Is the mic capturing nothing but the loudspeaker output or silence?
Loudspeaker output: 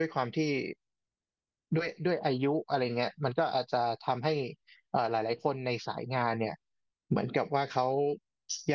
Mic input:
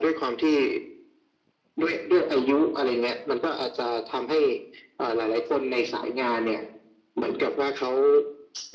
Yes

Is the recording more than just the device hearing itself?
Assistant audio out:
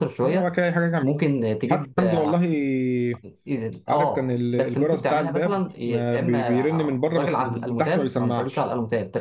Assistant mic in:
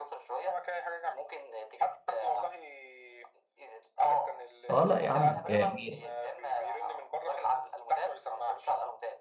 Yes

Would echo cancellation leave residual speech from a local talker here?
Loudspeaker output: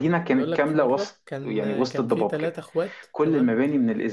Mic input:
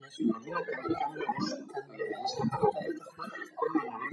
No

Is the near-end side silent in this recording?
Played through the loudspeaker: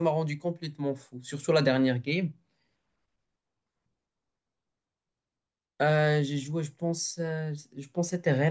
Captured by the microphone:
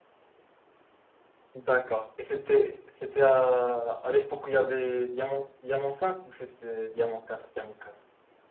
No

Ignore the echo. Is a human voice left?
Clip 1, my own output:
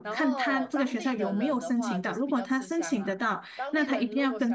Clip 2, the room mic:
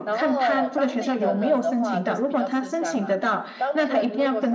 No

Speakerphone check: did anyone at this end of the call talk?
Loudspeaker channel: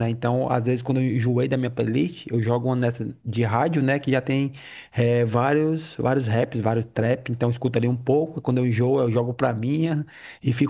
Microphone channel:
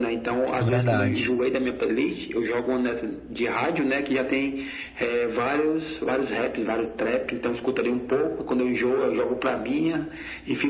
Yes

